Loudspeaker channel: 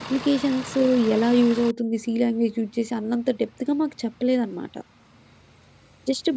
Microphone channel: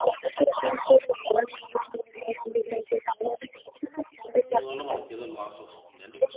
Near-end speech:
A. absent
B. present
B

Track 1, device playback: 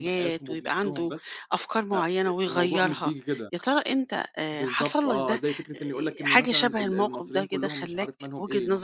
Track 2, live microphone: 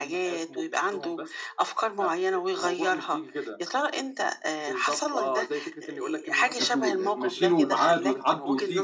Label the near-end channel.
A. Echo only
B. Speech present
B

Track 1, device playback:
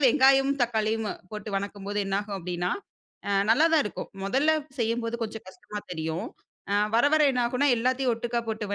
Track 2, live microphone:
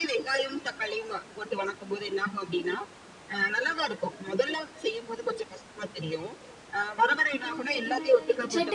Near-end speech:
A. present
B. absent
A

